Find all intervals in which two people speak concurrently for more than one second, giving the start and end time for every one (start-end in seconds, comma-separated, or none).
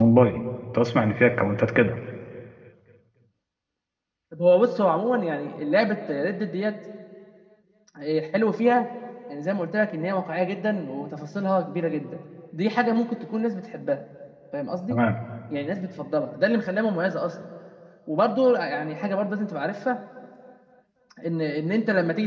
none